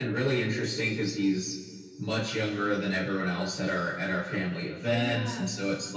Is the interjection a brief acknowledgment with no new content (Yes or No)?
Yes